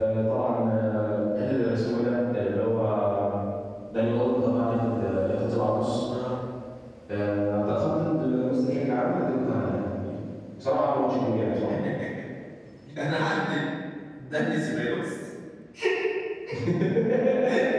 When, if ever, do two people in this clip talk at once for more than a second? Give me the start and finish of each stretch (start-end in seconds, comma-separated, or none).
none